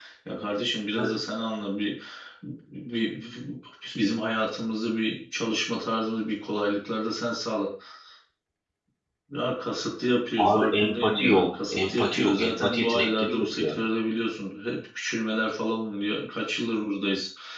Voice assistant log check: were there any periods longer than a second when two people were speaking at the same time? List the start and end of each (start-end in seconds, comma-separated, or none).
10.5-13.7